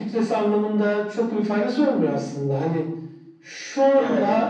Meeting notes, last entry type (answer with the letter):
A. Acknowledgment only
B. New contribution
A